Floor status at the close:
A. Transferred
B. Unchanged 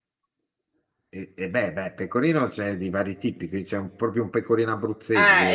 A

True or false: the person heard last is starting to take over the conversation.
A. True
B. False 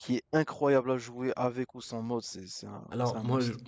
A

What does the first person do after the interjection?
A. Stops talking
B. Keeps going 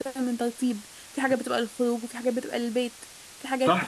A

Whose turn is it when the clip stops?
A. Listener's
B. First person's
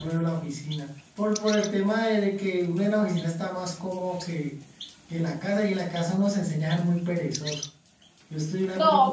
B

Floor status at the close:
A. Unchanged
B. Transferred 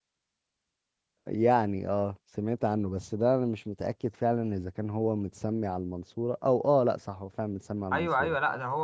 B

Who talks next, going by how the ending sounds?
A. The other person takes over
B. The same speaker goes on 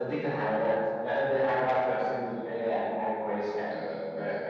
A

